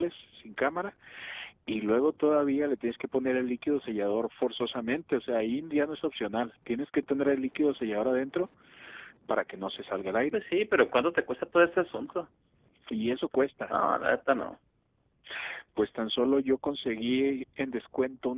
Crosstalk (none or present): none